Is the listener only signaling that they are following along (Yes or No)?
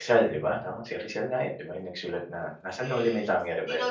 No